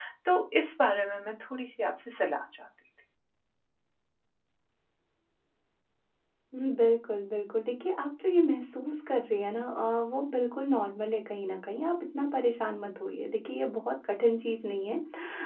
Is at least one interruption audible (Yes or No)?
No